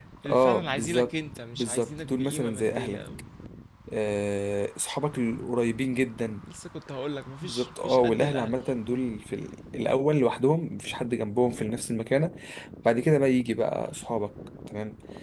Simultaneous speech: Yes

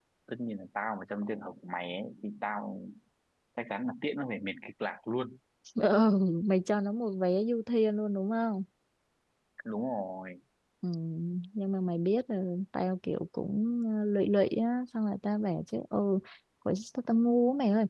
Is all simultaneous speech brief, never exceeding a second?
Yes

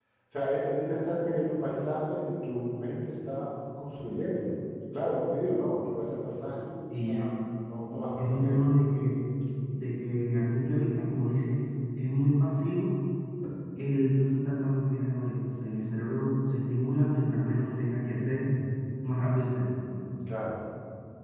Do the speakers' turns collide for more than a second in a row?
No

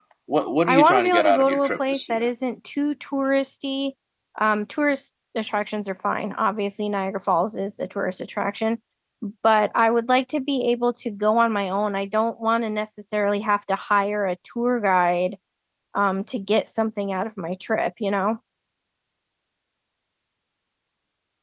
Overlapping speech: Yes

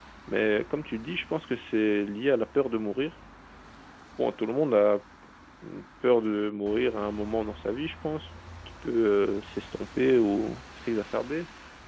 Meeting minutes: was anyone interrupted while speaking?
No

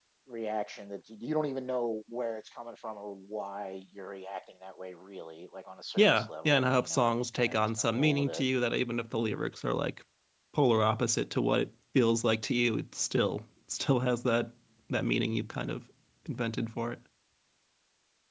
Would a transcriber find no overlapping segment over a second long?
No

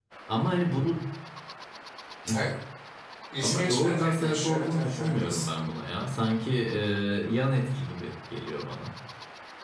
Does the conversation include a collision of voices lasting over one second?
Yes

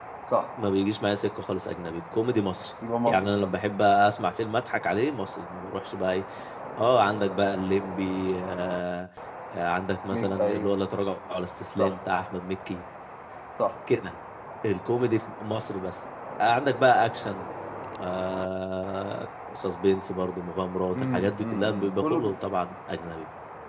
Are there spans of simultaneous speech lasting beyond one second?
Yes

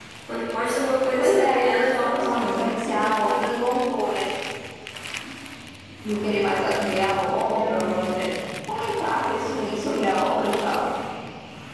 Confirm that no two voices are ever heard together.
No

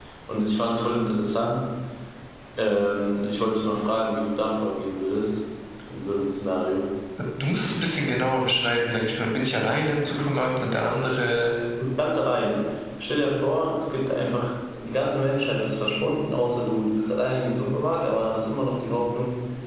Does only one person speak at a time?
Yes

